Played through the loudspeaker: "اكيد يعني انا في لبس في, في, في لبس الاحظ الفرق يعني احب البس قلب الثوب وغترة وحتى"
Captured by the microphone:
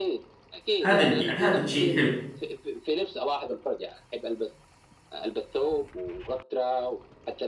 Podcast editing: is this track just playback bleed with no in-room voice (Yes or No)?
No